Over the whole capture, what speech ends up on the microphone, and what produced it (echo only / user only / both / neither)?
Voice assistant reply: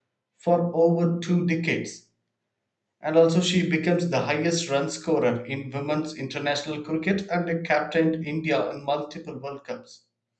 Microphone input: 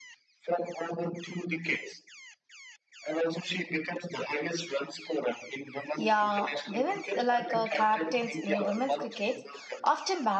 both